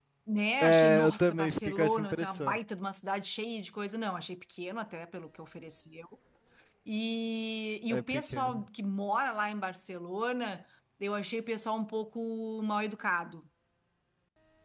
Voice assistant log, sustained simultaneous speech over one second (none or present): present